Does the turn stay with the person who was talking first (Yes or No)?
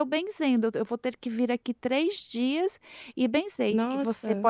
Yes